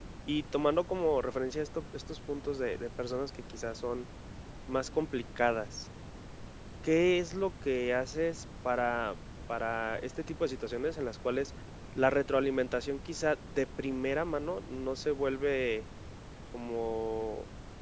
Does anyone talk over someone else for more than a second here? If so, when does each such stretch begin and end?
none

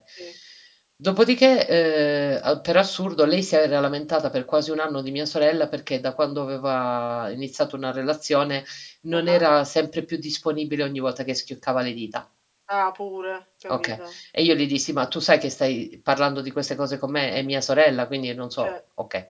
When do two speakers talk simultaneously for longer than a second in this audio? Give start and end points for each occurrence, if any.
none

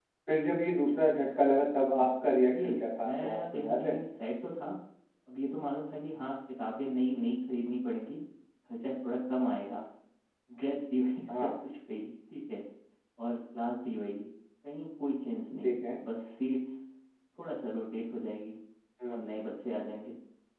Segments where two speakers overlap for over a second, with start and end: 2.5-4.0

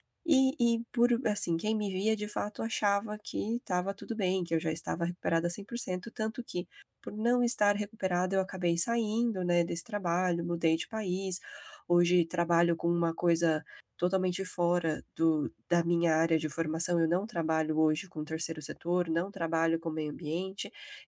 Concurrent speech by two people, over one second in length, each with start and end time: none

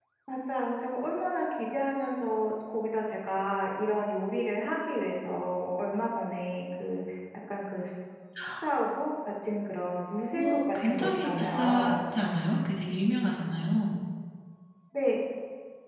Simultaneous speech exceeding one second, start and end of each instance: 10.3-11.9

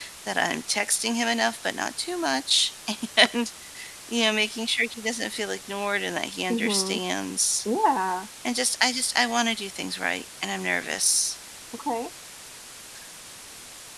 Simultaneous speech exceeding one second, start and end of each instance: none

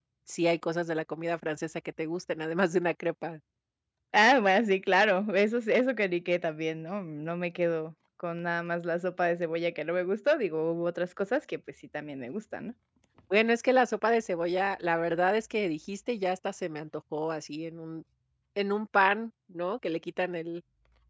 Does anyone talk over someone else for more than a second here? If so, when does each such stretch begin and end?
none

